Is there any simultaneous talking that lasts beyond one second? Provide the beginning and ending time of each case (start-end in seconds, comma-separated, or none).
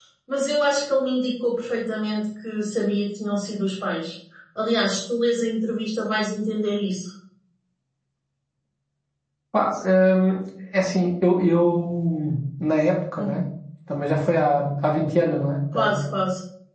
none